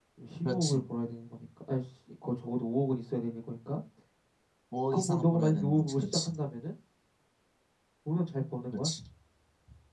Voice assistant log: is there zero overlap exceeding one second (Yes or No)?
No